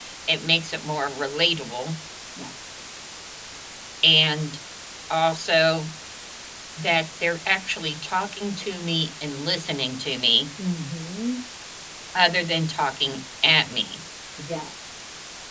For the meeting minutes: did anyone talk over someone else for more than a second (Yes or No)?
No